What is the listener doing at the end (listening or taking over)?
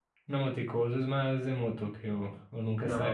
taking over